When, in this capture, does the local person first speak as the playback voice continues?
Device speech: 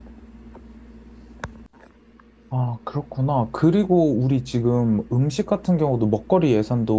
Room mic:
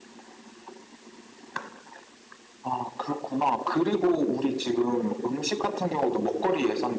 none

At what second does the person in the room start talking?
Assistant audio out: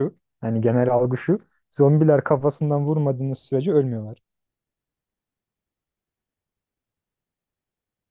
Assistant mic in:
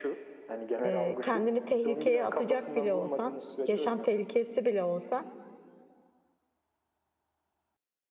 0.8 s

